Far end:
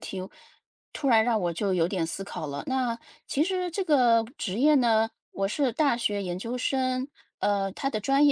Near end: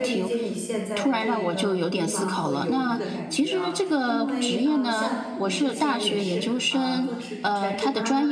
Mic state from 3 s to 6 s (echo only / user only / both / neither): both